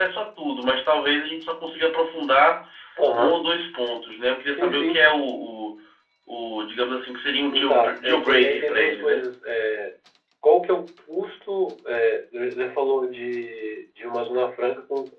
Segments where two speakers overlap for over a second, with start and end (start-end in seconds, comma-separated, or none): 7.7-9.2